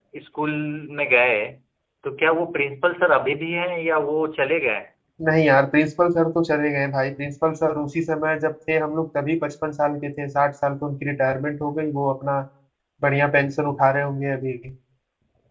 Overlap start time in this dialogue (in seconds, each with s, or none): none